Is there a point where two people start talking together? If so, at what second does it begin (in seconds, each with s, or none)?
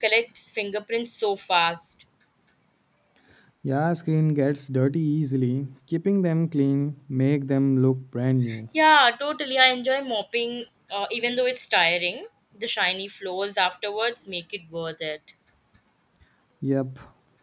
none